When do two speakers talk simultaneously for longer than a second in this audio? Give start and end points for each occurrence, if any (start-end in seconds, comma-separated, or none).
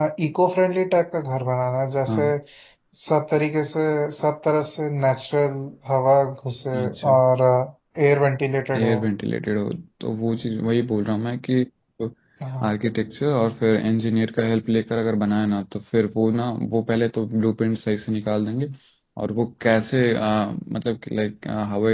none